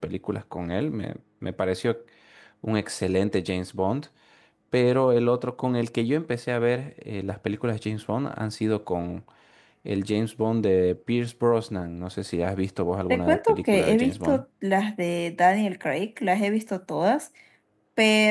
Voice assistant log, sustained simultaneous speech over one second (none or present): present